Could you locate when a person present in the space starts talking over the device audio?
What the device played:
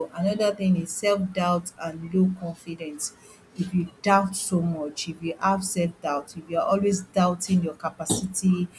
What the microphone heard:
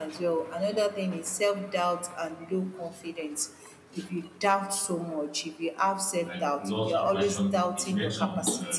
6.2 s

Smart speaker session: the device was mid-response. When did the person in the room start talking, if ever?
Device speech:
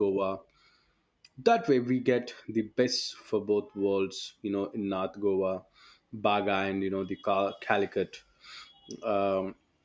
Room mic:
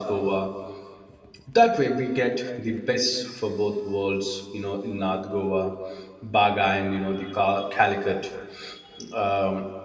none

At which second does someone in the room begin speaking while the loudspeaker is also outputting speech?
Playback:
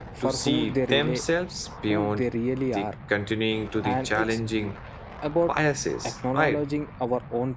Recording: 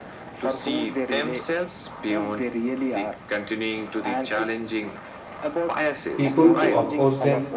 6.2 s

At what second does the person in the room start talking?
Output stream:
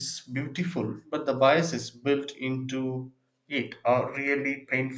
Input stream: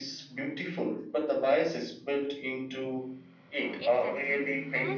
3.8 s

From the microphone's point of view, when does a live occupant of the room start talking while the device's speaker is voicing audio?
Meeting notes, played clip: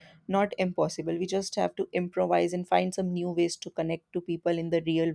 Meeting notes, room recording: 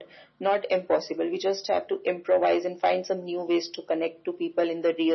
none

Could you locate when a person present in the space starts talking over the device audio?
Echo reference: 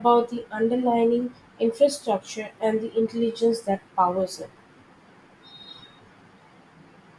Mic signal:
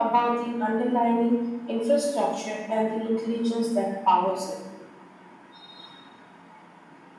none

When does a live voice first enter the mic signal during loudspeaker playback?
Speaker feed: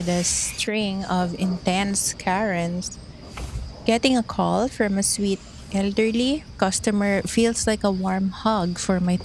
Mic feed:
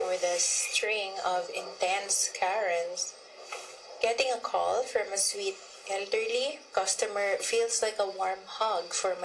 none

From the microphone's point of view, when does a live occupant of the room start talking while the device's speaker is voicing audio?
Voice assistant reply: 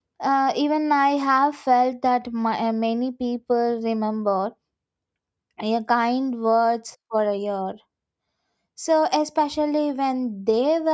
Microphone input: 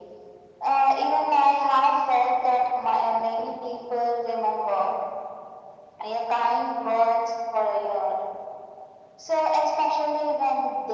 none

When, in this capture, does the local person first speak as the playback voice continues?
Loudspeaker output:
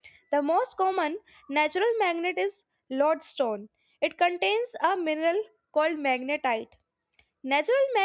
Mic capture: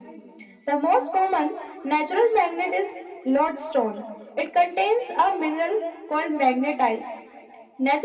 none

